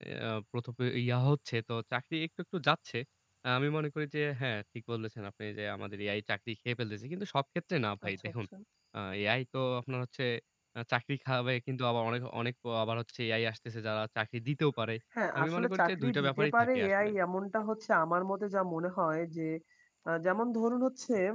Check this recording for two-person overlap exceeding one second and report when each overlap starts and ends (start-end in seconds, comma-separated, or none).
15.4-17.1